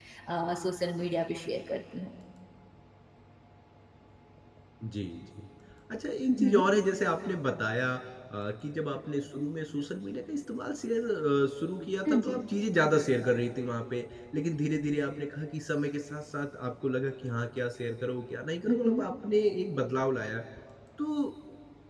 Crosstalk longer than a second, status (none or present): none